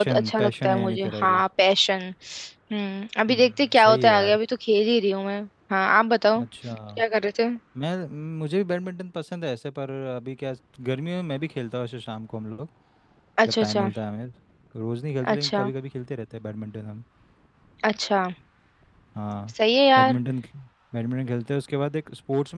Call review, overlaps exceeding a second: present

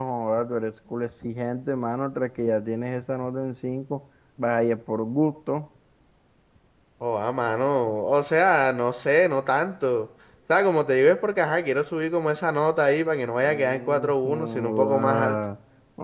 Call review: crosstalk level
present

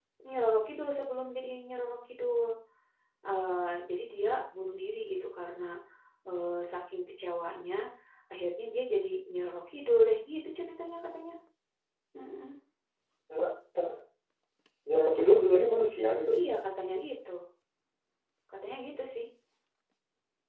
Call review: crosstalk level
none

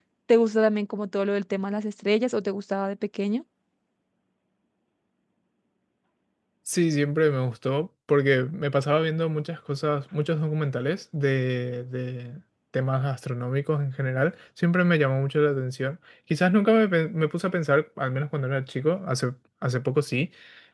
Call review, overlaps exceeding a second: none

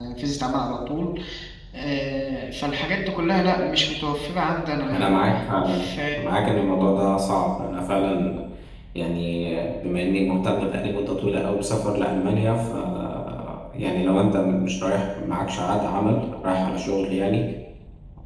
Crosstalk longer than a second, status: none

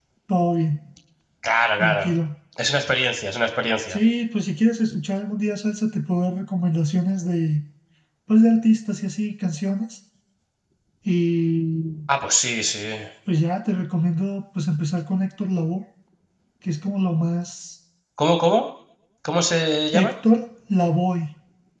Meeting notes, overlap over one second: none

